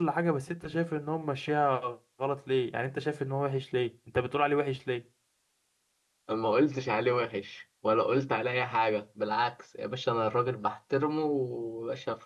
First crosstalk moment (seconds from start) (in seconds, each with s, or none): none